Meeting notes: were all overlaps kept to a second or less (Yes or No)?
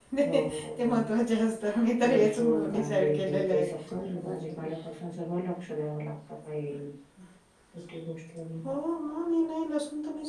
No